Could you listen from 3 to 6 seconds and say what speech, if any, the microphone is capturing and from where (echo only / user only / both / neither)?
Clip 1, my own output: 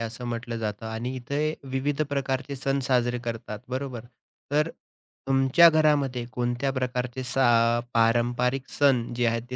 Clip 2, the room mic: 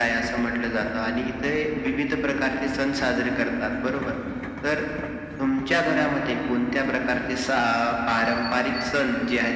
echo only